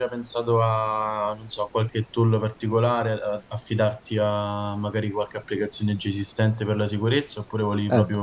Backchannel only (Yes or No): No